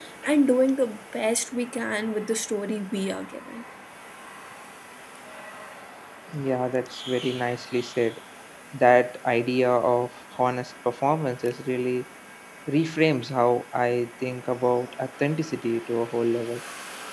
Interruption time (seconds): none

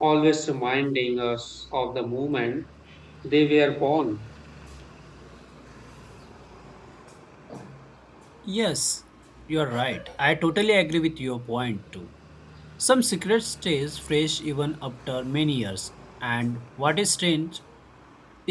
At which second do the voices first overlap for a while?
none

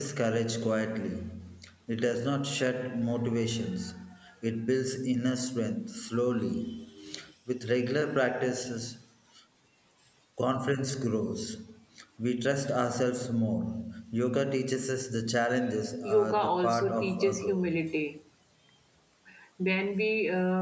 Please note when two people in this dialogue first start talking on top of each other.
16.0 s

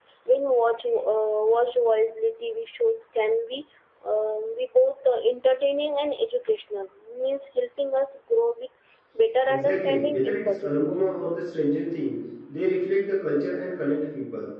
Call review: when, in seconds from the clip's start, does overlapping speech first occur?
9.5 s

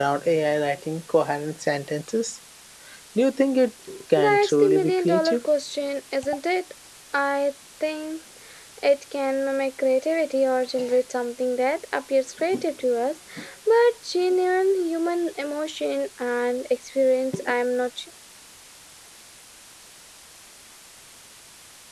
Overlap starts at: 4.2 s

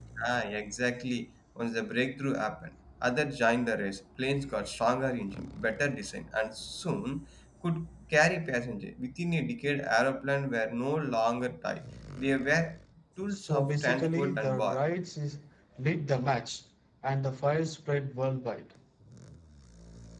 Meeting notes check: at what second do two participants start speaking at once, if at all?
13.3 s

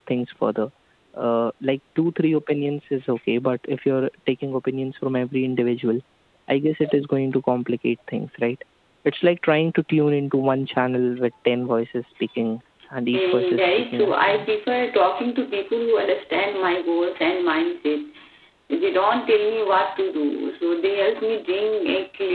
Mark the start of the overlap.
13.1 s

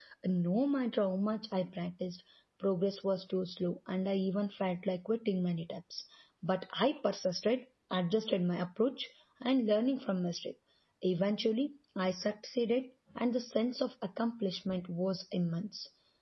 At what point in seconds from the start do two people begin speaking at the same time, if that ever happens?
none

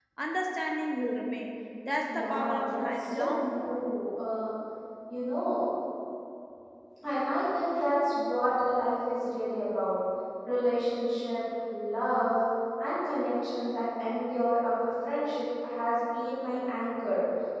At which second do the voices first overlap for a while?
2.0 s

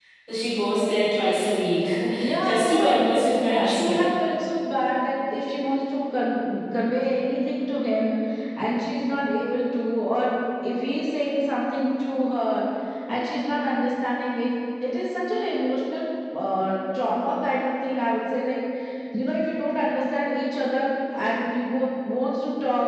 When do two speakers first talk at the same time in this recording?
2.4 s

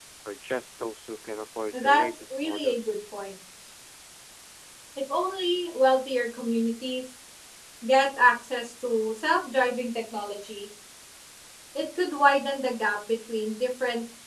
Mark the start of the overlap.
1.7 s

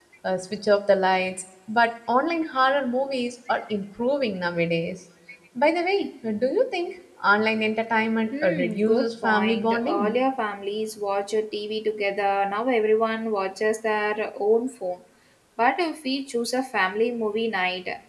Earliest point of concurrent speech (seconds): 8.3 s

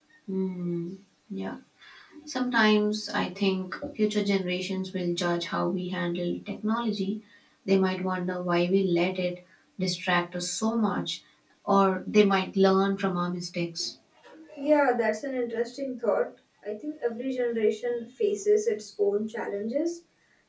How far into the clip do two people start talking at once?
none

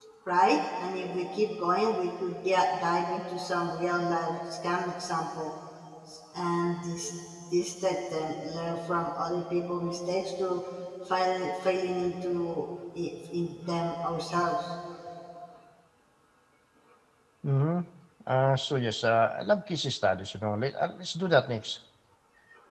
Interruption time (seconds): none

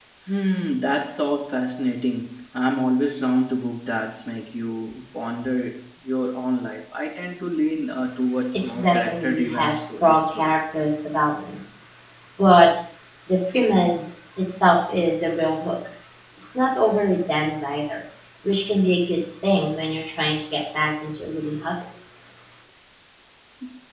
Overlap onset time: 8.5 s

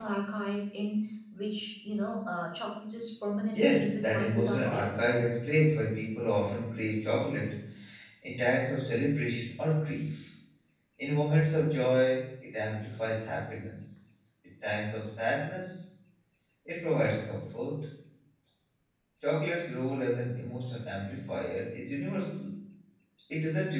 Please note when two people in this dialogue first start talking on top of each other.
3.5 s

